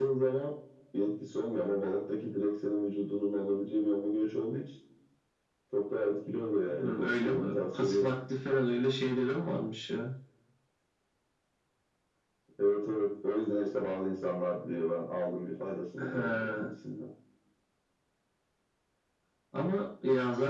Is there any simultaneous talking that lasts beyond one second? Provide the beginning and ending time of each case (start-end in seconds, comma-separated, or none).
6.7-8.1